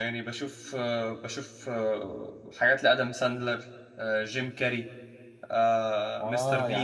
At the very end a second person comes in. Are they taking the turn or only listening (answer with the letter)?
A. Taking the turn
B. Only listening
A